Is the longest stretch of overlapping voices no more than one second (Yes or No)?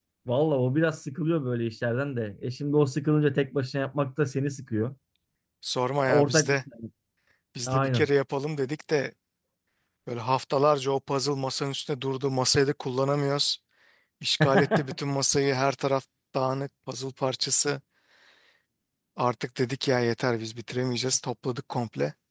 Yes